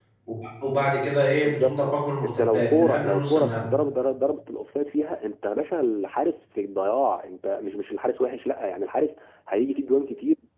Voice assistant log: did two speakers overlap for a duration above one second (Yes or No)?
Yes